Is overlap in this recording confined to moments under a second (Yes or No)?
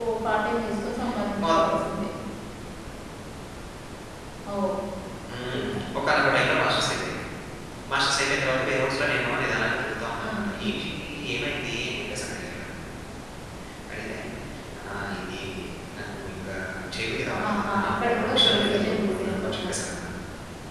No